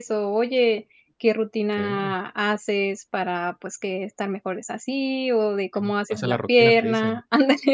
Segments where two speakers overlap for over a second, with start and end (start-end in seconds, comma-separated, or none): 5.8-7.2